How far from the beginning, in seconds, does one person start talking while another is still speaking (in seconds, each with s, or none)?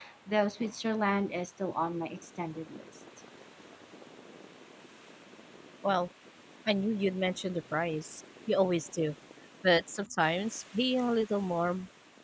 none